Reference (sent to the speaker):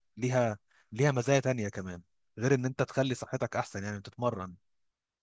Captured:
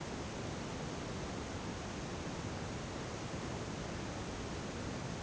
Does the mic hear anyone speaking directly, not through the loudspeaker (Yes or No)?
No